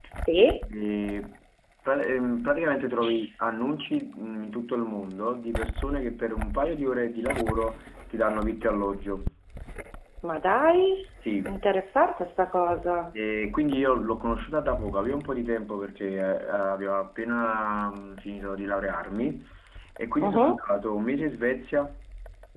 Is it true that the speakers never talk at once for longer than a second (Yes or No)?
Yes